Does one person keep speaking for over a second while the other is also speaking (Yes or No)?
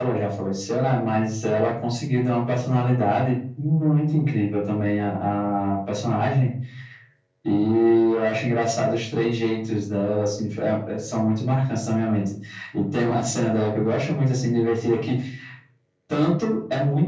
No